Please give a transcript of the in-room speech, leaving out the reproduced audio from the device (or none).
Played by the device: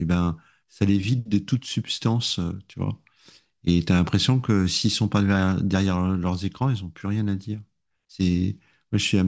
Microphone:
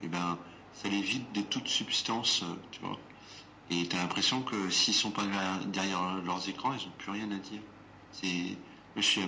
none